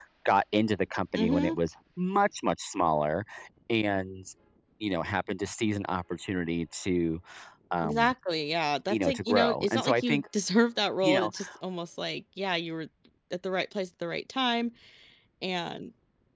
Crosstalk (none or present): present